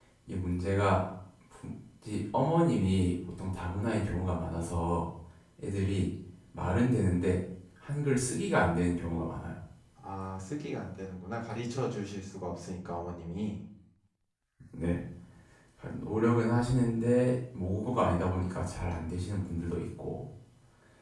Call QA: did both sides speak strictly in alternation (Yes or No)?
Yes